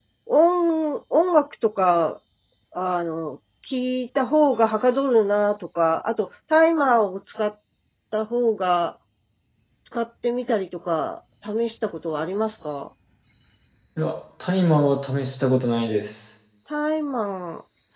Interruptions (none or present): none